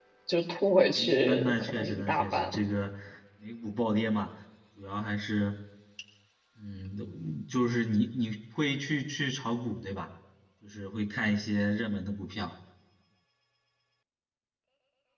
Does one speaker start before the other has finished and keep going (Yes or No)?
Yes